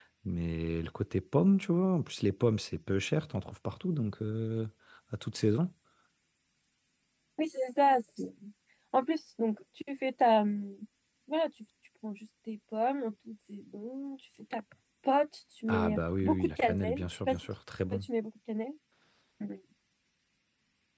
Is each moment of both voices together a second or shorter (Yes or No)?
No